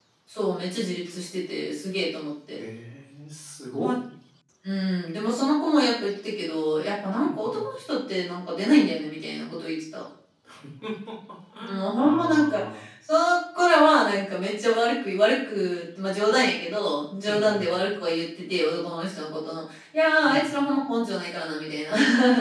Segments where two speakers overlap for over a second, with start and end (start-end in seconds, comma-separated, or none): 11.6-12.8